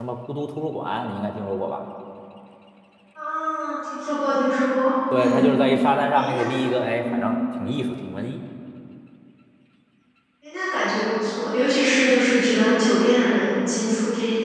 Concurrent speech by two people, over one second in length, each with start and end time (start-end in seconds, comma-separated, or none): none